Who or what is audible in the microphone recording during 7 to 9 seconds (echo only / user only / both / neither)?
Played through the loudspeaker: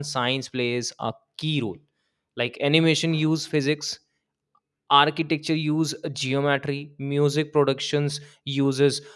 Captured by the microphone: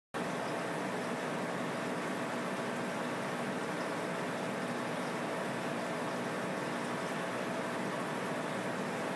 neither